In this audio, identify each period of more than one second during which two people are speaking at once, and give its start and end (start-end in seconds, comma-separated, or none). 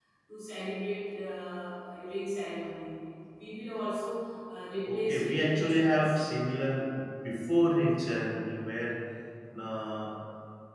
4.8-6.2